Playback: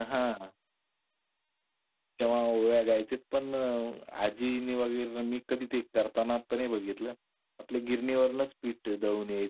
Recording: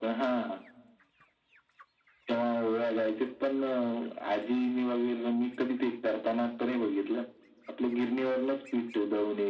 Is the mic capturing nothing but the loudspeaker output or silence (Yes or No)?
Yes